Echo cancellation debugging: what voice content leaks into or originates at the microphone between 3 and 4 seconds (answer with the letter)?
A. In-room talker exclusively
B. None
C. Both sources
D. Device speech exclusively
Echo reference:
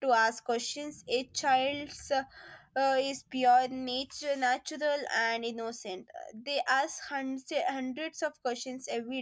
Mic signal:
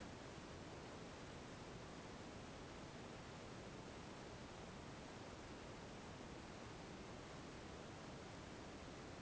B